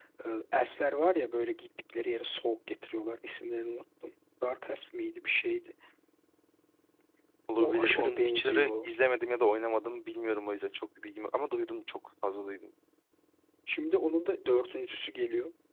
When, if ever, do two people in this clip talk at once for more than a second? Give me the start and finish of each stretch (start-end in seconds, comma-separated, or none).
7.6-8.9